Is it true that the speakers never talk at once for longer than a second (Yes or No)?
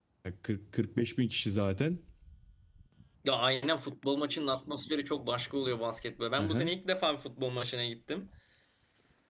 Yes